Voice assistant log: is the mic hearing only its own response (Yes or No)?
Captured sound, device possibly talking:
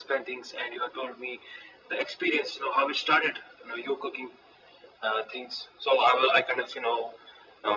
Yes